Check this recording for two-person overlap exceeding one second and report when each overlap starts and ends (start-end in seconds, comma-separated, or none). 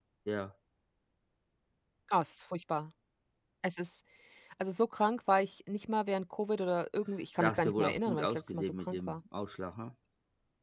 7.4-9.1